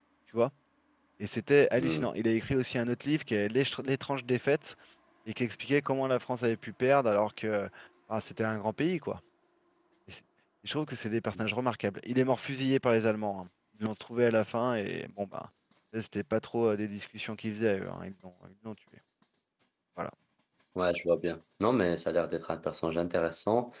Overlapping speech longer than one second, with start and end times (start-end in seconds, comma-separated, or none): none